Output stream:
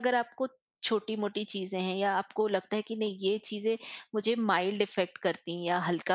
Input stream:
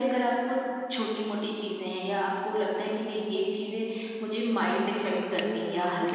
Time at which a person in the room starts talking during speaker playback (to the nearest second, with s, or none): 5 s